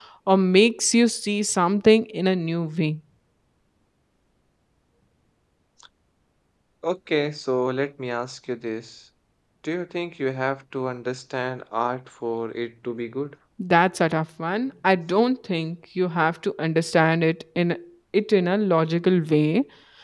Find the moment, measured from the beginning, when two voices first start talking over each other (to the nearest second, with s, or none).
none